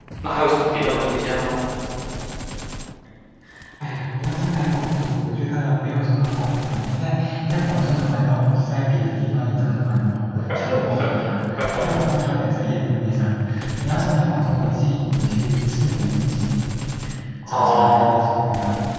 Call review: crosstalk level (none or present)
present